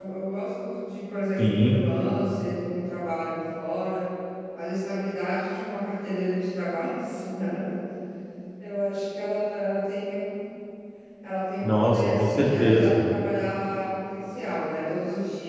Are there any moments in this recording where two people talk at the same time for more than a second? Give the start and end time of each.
11.6-13.0

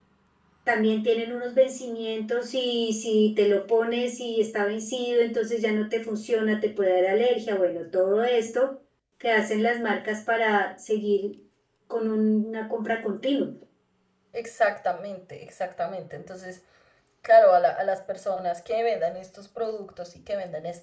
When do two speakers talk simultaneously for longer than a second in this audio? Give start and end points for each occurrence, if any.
none

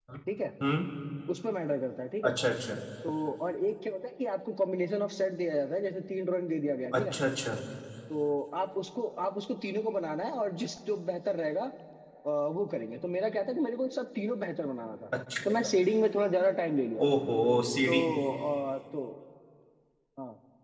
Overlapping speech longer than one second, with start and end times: none

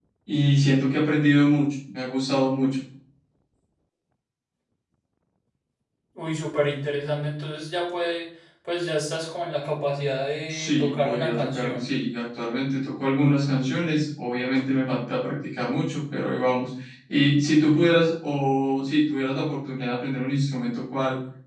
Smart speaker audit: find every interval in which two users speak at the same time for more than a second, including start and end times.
10.5-11.9

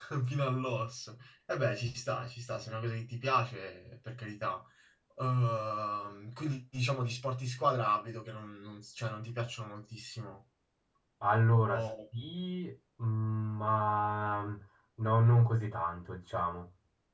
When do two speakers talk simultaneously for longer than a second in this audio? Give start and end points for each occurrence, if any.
none

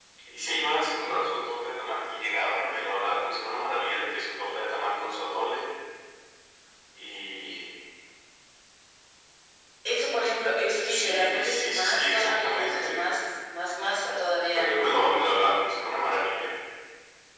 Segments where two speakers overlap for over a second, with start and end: 10.9-13.1

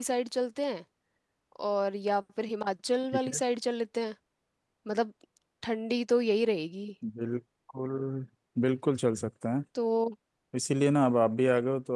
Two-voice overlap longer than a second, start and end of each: none

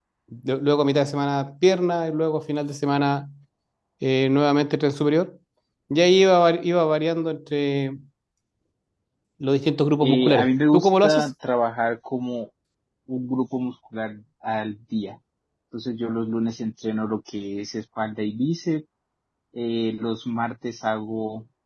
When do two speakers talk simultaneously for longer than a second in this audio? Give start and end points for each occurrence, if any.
10.0-11.3

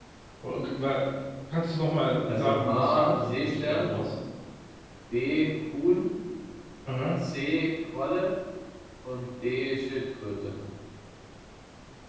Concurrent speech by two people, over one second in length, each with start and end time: 2.3-3.9

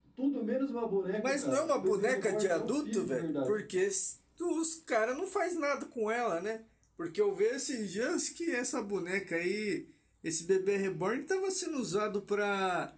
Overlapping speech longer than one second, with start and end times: 1.2-3.6

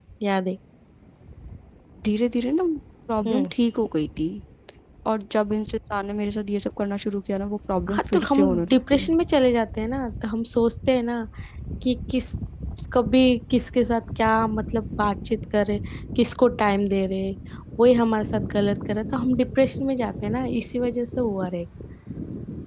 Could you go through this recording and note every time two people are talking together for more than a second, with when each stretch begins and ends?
7.9-9.1

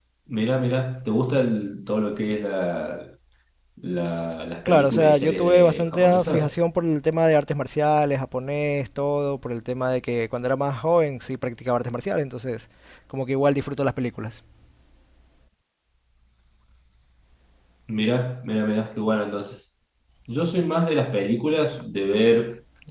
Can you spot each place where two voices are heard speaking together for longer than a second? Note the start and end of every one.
4.7-6.6

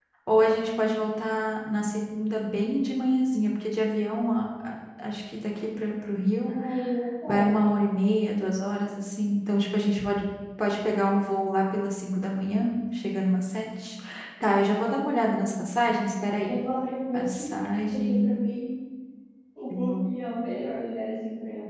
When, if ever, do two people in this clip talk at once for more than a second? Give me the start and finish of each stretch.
none

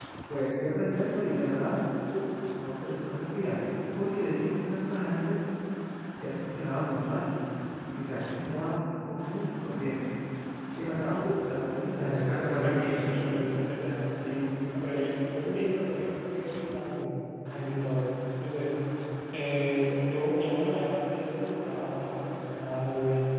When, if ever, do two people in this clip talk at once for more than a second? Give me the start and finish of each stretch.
12.0-13.3

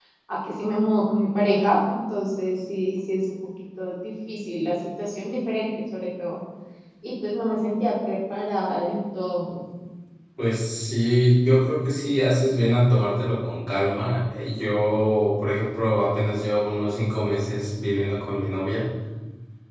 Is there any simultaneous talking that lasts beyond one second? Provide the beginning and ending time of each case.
none

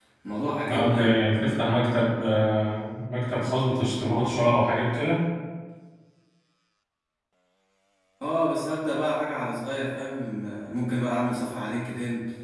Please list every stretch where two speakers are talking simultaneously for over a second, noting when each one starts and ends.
none

